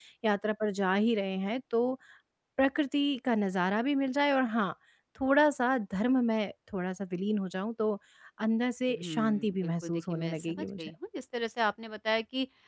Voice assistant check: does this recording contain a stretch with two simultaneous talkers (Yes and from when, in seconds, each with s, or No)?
Yes, from 8.9 s